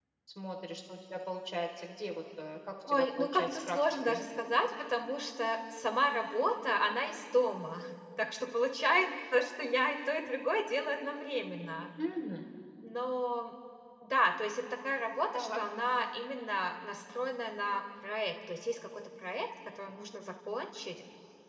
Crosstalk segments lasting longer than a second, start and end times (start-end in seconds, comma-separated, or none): 2.8-4.2